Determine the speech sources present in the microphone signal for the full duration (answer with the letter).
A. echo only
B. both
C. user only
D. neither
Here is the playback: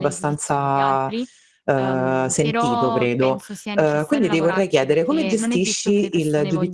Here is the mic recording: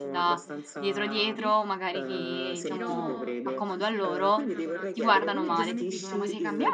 B